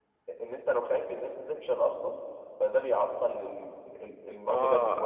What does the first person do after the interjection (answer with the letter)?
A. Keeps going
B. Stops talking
B